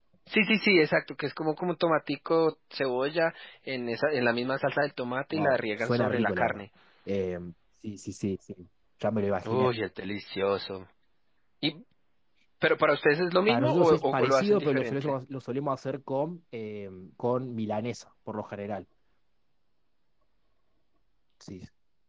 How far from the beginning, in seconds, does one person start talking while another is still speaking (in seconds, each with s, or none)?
5.3 s